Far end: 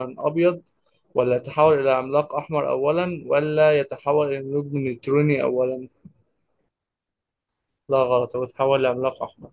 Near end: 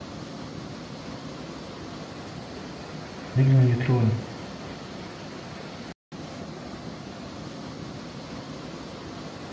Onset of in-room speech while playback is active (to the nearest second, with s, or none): 3 s